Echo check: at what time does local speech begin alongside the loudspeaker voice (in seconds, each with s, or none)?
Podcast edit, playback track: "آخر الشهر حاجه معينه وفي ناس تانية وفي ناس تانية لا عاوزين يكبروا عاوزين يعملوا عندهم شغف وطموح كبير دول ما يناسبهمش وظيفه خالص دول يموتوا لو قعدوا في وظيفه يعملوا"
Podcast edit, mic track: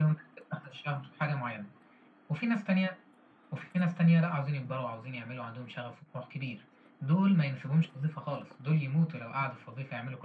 none